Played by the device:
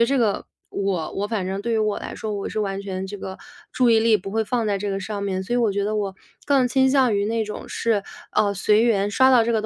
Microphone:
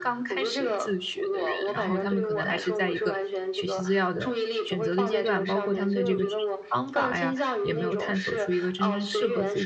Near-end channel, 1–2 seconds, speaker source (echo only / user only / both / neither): both